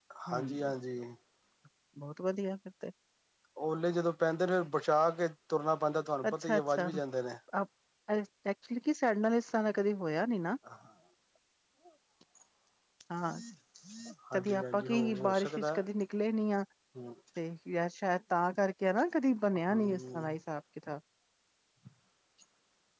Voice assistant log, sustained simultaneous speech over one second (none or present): present